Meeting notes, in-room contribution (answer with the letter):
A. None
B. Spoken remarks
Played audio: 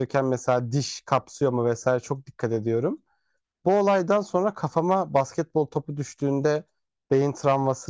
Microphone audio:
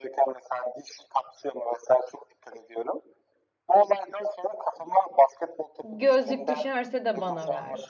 B